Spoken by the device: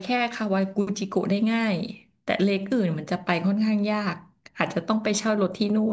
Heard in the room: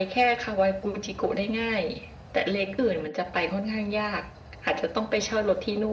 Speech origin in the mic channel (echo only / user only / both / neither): echo only